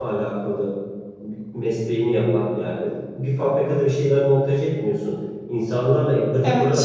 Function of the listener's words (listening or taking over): listening